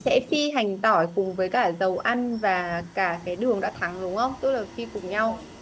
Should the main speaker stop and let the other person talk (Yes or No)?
Yes